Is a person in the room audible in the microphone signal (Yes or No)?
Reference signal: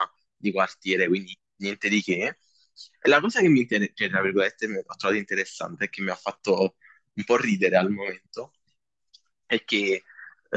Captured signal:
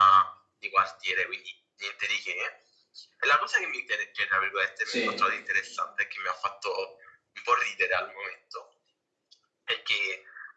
Yes